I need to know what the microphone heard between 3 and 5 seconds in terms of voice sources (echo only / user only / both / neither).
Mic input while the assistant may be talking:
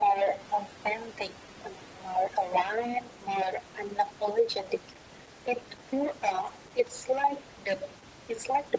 echo only